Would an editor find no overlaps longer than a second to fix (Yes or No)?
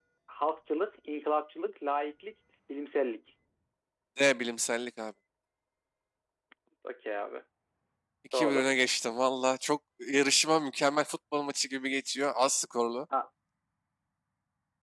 Yes